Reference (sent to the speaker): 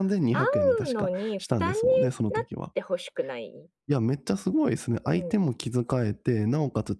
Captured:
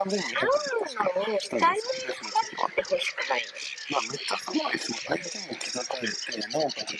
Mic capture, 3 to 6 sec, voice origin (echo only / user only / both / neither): echo only